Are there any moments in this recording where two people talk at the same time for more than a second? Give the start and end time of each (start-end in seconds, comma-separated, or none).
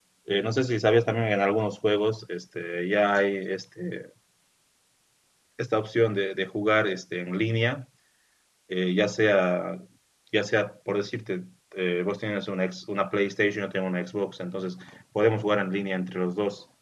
none